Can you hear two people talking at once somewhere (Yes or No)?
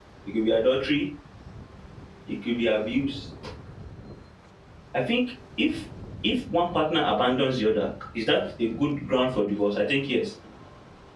No